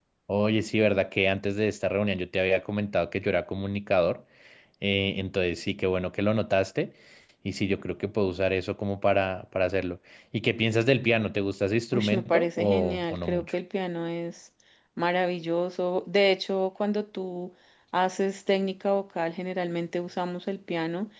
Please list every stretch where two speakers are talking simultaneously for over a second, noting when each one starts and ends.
11.9-13.5

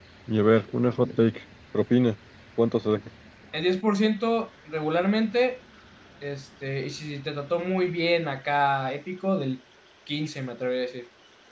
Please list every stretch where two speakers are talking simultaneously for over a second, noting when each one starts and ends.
none

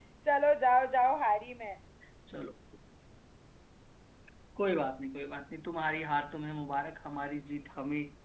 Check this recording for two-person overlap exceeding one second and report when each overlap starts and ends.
none

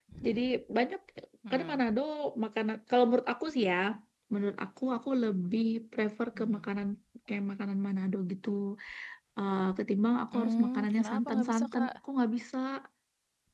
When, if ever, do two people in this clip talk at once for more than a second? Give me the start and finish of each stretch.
10.3-11.9

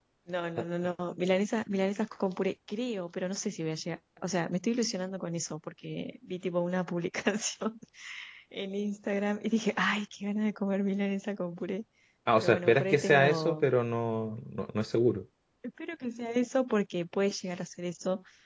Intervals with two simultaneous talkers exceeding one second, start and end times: 12.3-13.7

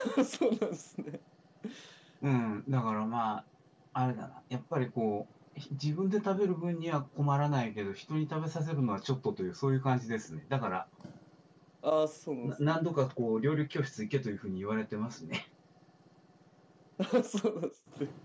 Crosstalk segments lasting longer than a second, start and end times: none

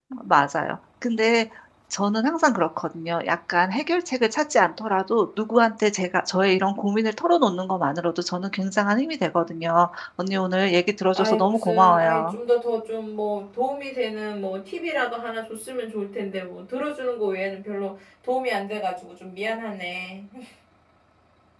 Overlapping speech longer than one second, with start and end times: 11.2-12.4

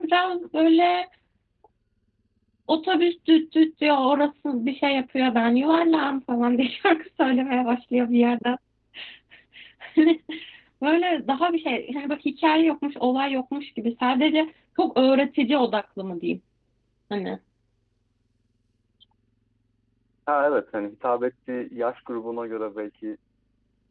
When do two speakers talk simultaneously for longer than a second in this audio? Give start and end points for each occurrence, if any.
none

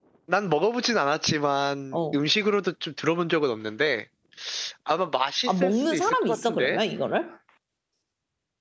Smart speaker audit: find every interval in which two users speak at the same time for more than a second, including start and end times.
5.5-6.8

